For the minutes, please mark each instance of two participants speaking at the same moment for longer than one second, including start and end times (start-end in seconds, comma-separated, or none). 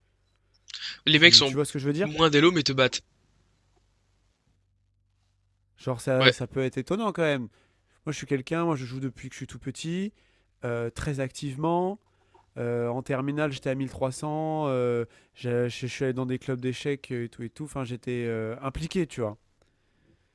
none